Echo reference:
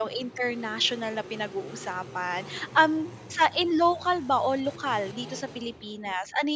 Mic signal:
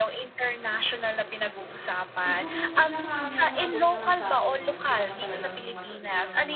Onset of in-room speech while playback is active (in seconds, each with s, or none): 2.2 s